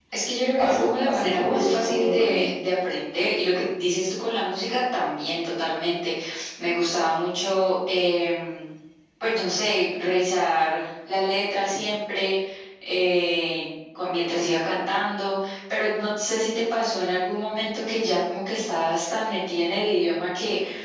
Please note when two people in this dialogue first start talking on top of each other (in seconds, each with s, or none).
0.6 s